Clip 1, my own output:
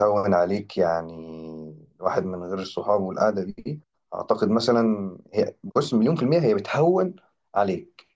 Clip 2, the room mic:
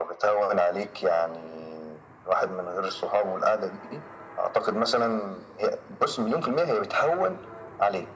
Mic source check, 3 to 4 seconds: echo only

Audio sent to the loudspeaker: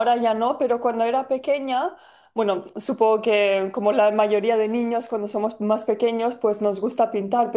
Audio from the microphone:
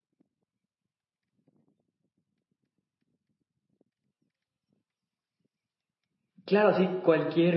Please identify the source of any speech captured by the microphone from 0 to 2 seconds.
neither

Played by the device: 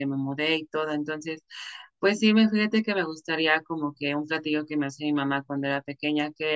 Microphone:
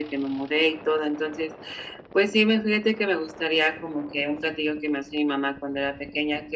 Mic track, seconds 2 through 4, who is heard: echo only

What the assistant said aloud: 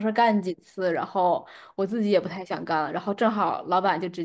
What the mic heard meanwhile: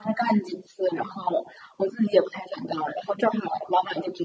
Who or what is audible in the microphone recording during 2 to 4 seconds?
echo only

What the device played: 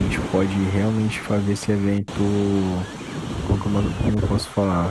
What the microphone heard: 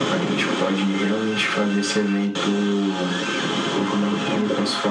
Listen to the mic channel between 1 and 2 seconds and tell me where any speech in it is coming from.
echo only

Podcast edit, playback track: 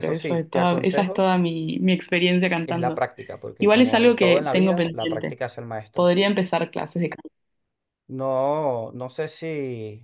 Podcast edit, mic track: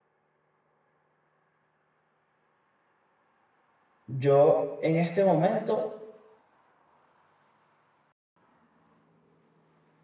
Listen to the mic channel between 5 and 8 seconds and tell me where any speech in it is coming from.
user only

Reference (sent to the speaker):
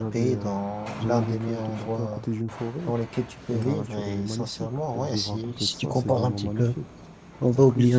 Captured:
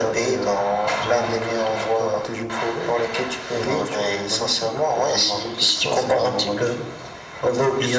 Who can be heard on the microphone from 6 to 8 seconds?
echo only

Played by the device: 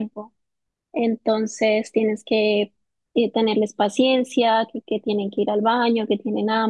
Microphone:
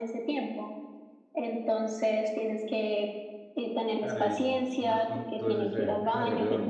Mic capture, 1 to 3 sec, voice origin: echo only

